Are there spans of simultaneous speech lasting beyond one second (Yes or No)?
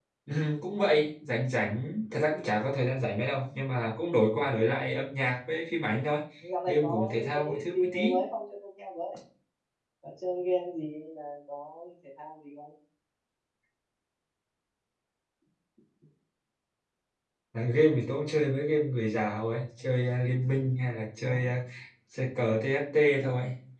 Yes